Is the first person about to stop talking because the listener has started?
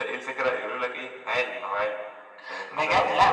Yes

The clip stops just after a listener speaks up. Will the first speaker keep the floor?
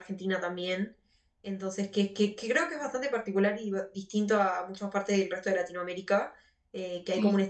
Yes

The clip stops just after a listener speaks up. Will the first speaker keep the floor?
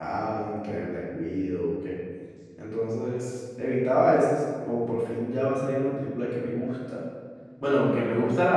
Yes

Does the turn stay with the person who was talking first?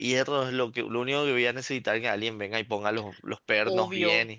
No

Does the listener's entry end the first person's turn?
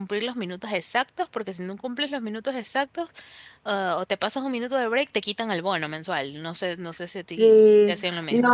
Yes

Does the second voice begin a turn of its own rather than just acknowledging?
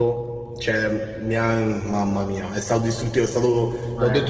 No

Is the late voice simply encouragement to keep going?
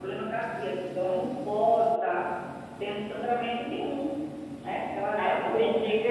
No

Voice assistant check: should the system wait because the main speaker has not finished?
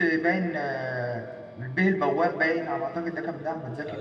No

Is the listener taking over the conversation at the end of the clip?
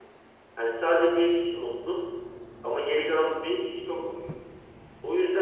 No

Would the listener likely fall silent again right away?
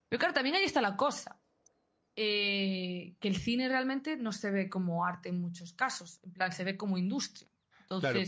No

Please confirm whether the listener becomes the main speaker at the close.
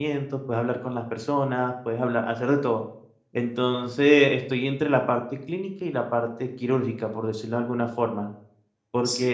No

